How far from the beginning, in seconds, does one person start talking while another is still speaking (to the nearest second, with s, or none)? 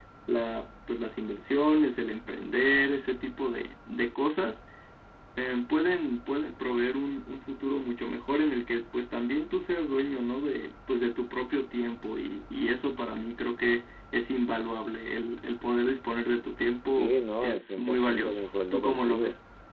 17 s